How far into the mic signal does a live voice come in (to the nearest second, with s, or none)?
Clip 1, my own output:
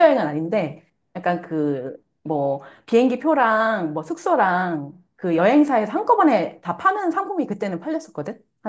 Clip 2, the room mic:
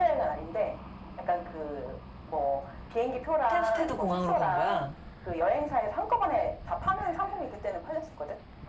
3 s